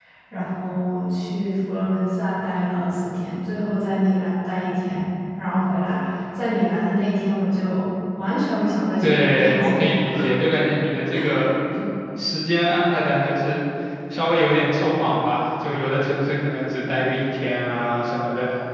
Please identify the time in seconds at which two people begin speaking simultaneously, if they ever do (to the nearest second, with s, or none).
9 s